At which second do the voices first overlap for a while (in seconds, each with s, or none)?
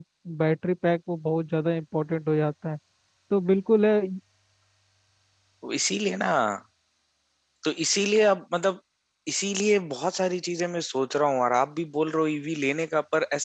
none